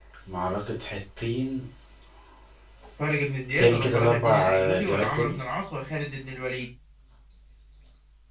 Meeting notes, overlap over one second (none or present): present